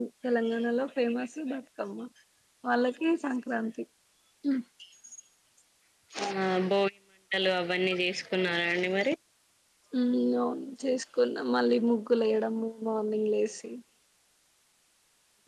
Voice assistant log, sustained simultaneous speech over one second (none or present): none